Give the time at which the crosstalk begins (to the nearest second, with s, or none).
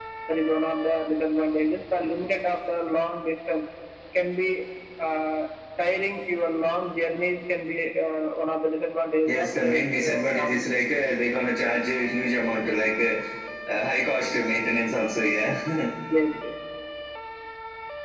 9 s